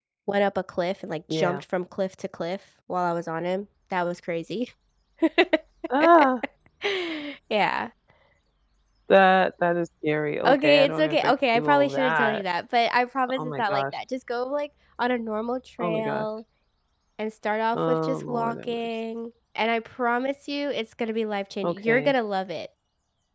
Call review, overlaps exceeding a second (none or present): present